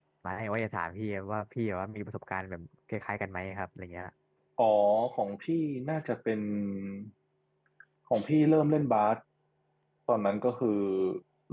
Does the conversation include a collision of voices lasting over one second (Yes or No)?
No